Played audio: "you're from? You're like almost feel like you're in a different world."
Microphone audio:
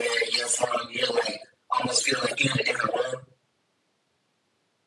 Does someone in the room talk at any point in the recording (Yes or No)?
No